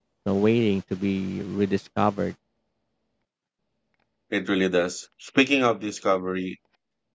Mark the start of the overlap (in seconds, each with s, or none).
none